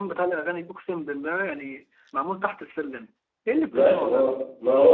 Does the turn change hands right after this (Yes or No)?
Yes